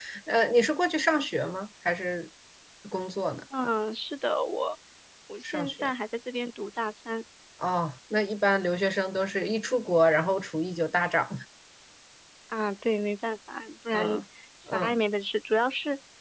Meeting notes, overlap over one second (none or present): none